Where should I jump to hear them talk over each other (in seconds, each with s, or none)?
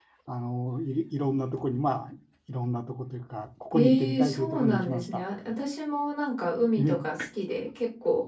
3.7 s